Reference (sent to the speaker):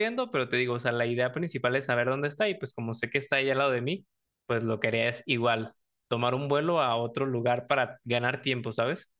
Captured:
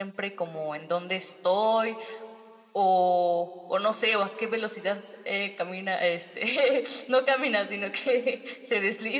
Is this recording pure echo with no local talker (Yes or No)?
No